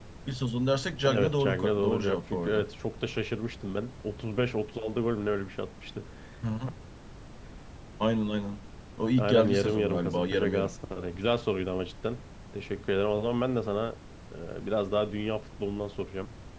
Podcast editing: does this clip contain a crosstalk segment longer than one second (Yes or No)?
Yes